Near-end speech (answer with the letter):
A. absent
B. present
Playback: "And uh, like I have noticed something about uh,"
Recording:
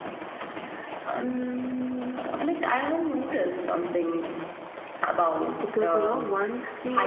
B